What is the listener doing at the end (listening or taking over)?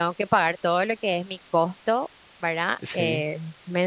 listening